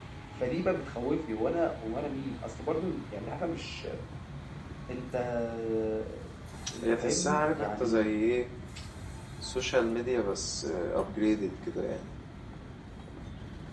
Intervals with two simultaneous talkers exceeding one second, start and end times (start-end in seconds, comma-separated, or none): 6.8-8.1